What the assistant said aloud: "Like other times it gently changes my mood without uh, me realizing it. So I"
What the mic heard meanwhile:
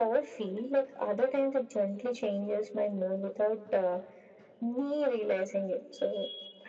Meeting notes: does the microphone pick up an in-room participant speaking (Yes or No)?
No